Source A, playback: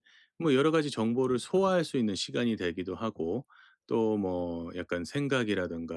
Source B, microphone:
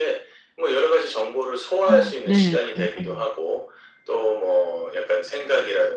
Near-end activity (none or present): present